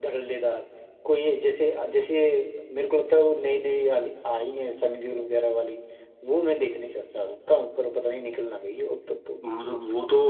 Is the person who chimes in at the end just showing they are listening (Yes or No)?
No